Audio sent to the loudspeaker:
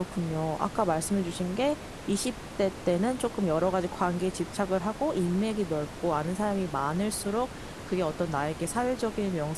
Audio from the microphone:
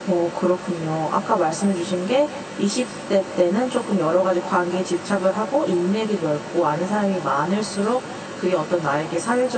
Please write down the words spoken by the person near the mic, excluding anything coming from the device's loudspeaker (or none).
none